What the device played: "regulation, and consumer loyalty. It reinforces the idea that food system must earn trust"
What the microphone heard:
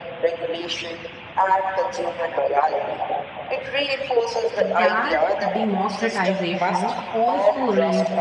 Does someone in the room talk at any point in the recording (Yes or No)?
Yes